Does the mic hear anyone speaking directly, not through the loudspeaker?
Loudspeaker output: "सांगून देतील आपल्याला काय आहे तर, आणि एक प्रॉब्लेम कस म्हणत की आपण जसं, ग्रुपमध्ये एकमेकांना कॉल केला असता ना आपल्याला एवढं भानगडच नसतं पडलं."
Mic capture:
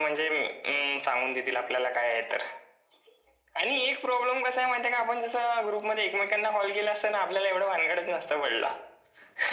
No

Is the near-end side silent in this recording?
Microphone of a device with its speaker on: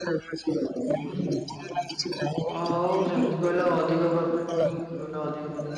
No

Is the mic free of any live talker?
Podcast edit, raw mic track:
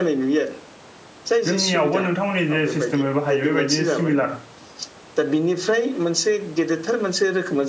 No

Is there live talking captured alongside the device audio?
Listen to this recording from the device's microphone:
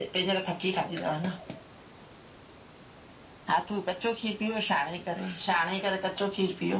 No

